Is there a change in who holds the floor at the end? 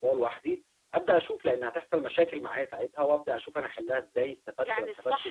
Yes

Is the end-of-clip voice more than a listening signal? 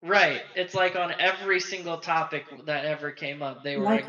No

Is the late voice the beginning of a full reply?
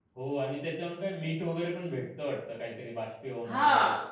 Yes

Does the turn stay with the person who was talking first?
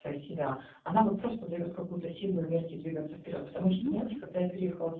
Yes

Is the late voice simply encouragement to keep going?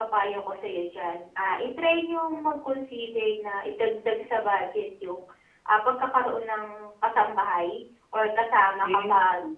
Yes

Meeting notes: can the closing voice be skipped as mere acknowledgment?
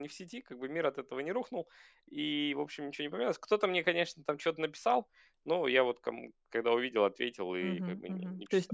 No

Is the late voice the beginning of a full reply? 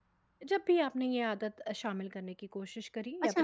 Yes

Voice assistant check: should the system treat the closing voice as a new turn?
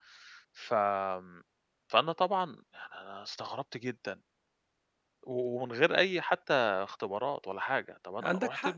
Yes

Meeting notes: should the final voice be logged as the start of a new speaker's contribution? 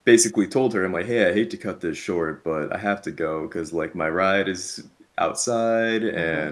No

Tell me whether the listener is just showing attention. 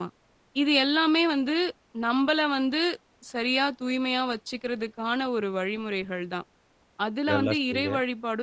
Yes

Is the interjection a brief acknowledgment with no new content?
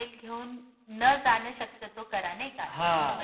No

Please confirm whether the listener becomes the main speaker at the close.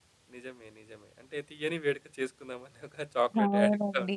Yes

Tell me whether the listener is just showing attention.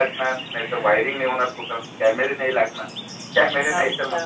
No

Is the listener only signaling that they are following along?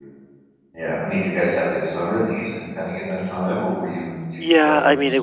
No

